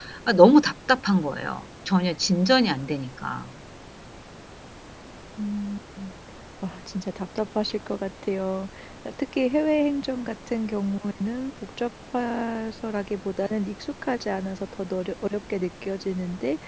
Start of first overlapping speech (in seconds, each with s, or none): none